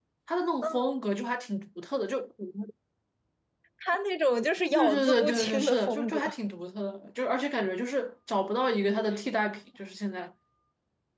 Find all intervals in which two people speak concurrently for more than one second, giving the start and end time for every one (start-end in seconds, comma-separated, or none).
4.7-6.3